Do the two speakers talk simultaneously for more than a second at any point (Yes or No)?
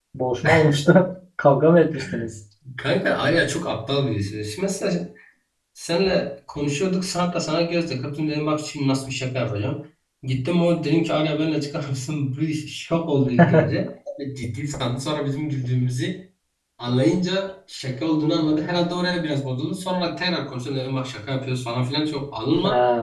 No